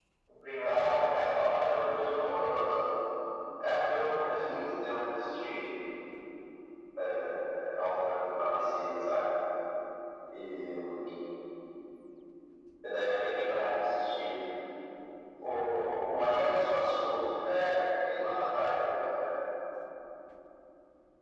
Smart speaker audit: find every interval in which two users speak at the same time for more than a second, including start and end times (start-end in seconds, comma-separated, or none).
0.6-2.2